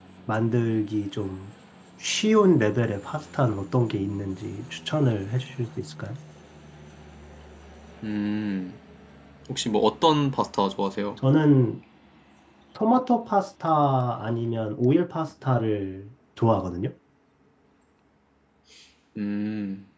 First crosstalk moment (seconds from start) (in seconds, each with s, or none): none